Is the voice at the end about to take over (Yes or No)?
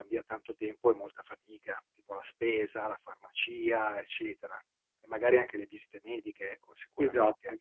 Yes